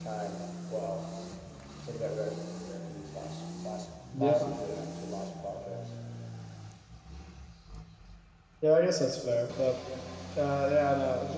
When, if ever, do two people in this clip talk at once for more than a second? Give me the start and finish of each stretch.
none

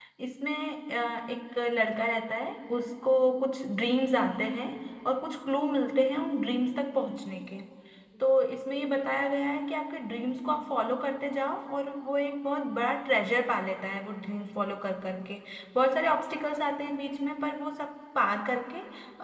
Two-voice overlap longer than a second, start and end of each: none

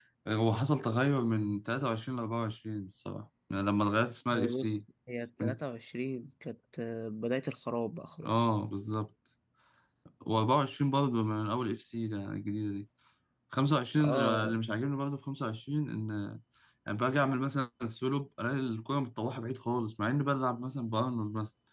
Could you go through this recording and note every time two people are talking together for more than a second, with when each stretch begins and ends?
none

